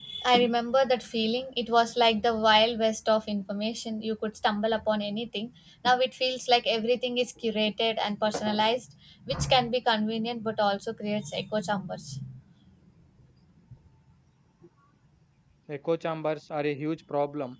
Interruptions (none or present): none